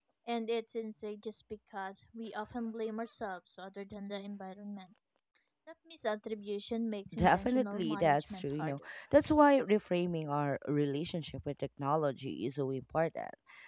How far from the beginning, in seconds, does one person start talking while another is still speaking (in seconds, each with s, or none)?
7.1 s